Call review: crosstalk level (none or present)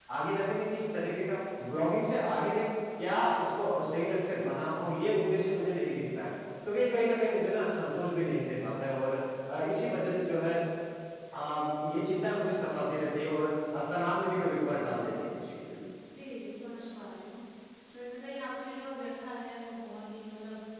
none